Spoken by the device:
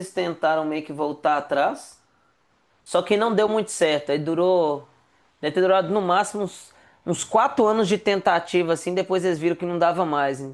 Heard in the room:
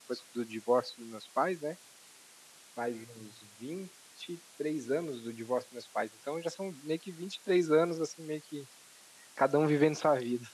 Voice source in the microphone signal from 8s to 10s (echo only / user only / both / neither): user only